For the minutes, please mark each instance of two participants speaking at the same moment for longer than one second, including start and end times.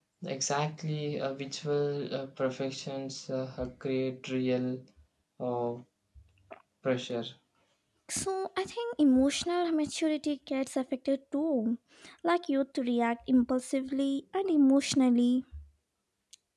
none

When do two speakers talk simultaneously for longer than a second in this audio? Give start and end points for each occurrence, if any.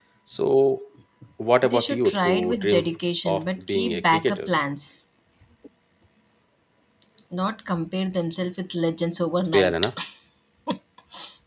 1.6-2.8, 3.3-4.5

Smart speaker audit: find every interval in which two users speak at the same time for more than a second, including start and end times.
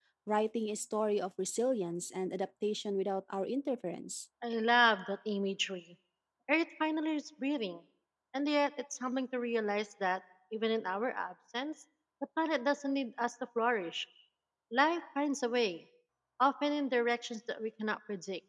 none

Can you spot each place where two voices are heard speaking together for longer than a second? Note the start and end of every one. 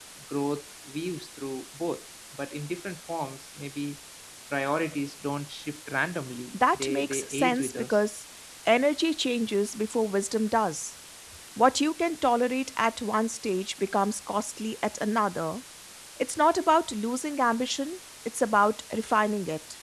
6.5-8.0

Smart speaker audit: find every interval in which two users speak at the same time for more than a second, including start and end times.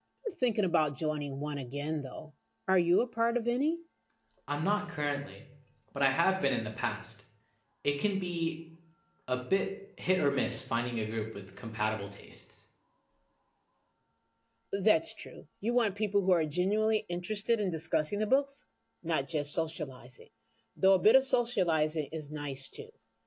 none

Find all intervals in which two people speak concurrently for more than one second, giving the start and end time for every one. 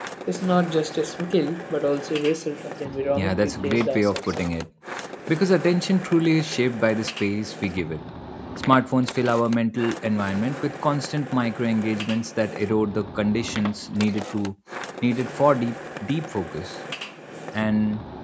3.1-4.4

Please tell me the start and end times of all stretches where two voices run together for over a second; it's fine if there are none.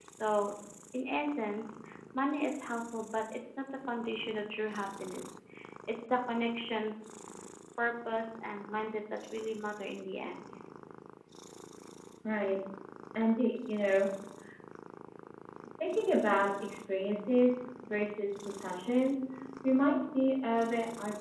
none

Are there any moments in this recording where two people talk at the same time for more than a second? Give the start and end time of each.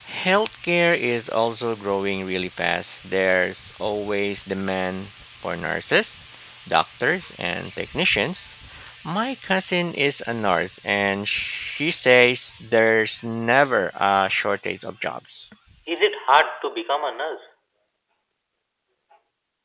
none

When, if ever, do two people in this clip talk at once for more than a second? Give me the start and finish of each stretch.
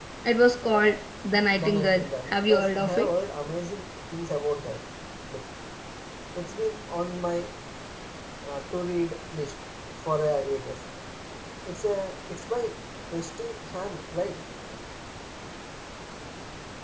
1.6-3.1

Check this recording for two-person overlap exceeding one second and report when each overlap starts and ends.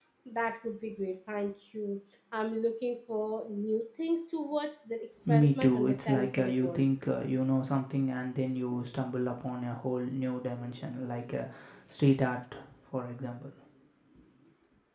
5.3-6.8

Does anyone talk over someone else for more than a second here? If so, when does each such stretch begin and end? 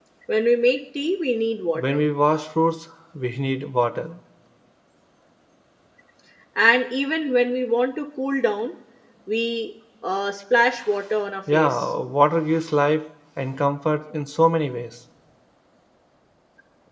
none

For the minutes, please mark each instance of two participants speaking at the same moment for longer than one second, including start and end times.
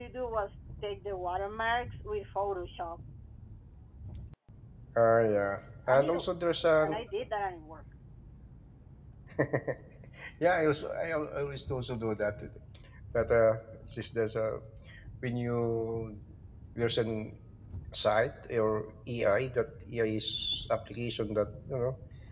none

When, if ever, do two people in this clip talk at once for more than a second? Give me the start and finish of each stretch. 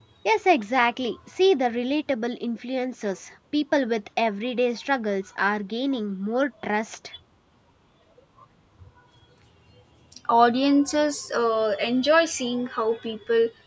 none

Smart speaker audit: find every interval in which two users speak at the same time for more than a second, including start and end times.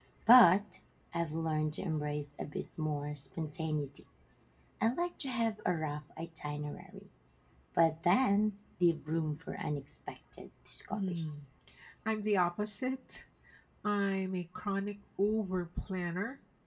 none

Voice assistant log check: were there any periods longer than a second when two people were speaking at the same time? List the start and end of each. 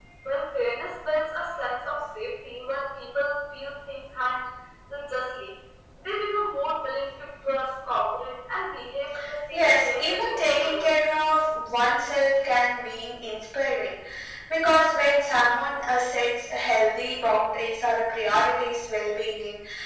9.5-10.9

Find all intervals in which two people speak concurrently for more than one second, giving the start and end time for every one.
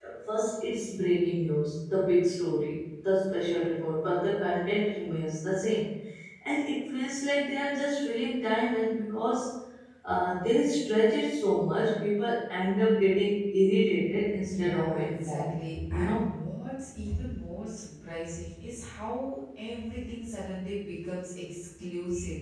14.5-16.3

